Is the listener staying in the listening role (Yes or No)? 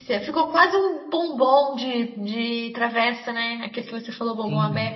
No